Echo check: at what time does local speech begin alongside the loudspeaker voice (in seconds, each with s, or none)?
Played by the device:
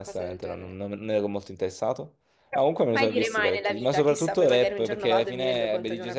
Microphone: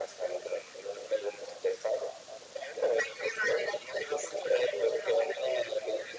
none